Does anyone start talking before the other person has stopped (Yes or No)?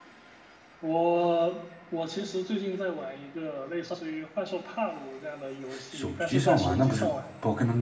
Yes